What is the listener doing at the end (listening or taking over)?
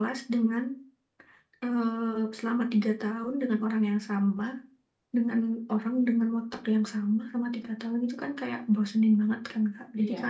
listening